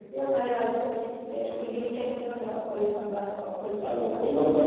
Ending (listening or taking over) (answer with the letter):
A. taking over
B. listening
A